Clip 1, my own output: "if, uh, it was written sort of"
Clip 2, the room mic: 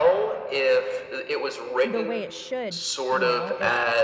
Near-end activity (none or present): present